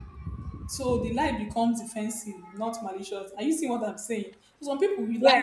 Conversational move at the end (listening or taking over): listening